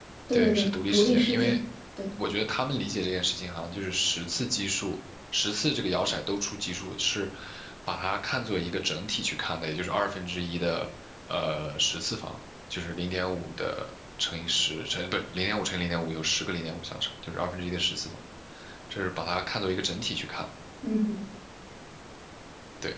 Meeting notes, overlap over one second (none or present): present